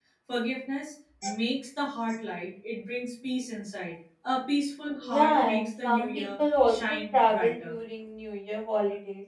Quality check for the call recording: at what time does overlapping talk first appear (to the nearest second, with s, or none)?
5 s